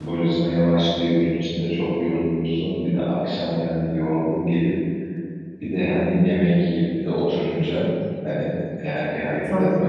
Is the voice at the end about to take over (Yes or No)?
No